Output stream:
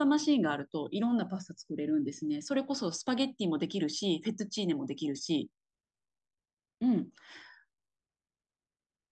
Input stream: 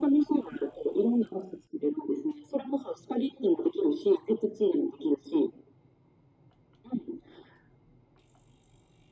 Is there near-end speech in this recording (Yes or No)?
No